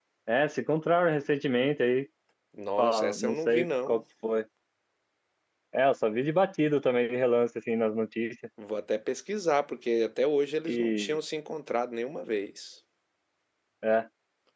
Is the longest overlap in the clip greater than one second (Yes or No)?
Yes